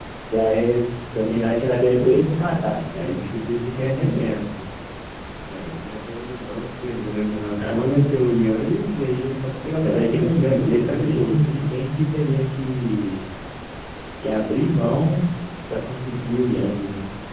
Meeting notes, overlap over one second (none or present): present